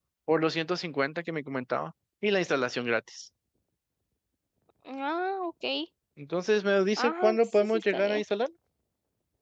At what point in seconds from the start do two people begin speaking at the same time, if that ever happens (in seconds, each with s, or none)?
7.0 s